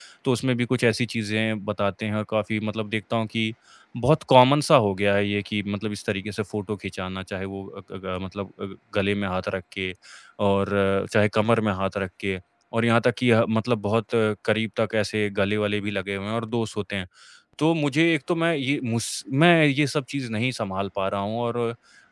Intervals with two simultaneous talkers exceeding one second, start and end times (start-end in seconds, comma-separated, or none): none